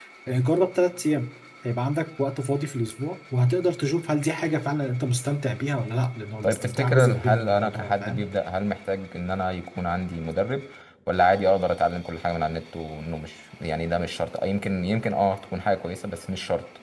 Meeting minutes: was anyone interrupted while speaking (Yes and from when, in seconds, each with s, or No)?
Yes, from 6.4 s